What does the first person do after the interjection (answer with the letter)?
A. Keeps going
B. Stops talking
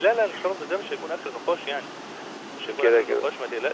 A